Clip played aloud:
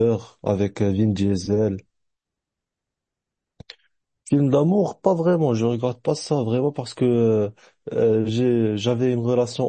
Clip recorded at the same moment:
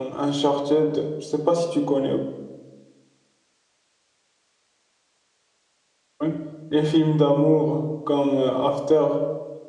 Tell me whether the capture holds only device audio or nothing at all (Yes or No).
No